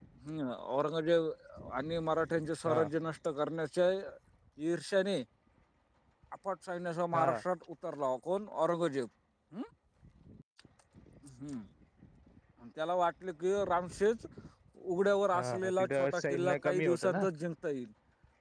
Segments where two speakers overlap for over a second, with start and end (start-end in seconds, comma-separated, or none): 15.3-17.2